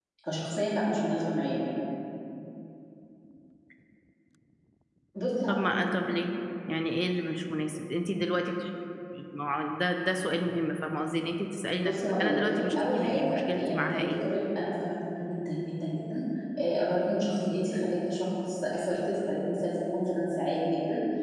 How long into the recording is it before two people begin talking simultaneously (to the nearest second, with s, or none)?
12 s